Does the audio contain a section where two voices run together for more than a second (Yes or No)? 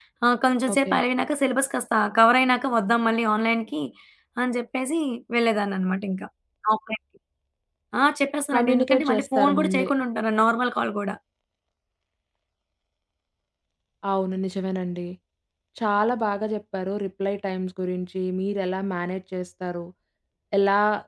Yes